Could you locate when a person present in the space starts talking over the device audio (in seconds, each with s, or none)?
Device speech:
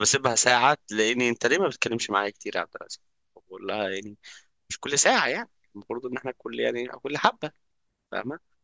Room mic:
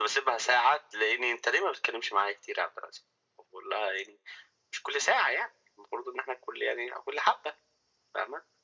none